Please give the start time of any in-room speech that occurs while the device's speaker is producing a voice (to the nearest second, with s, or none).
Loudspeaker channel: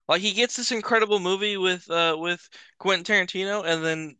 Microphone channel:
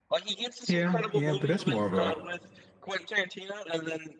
1 s